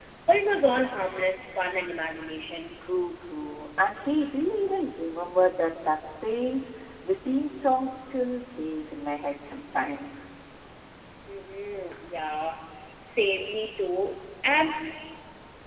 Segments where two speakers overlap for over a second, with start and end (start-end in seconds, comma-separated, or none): none